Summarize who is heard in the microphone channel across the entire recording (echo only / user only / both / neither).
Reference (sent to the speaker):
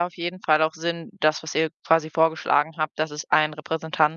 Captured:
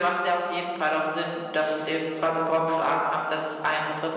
echo only